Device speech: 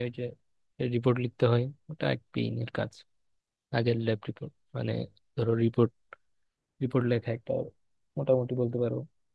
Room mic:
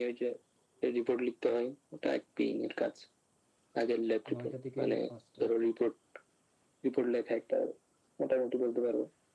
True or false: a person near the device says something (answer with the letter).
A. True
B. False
A